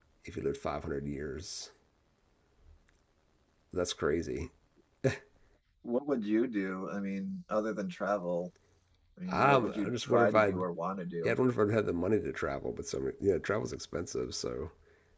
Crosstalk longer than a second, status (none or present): present